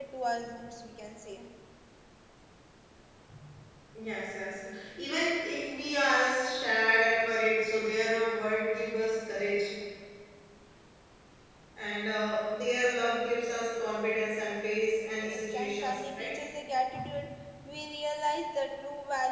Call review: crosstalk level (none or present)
present